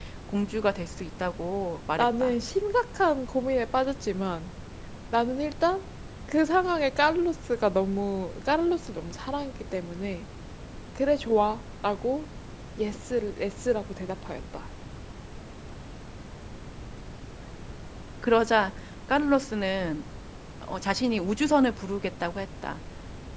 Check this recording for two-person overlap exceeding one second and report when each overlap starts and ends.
none

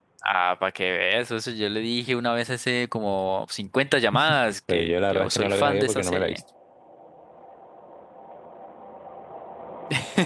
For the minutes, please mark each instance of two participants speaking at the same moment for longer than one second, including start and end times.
4.7-6.4

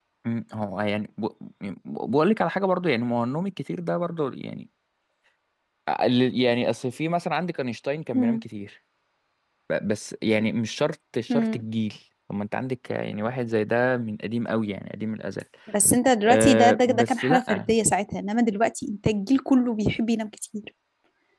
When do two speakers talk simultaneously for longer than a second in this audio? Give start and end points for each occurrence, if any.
16.3-17.6

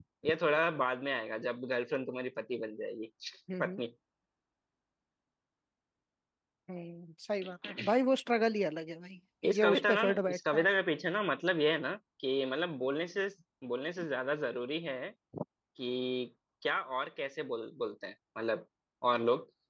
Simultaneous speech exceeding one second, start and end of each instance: 9.4-10.7

